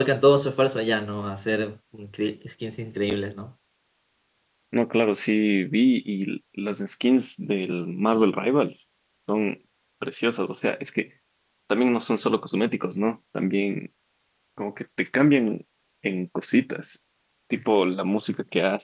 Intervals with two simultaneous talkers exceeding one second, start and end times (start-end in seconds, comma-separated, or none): none